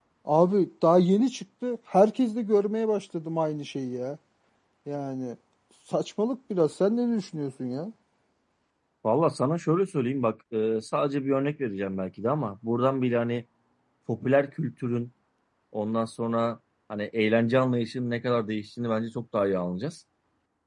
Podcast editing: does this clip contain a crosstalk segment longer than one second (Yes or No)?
No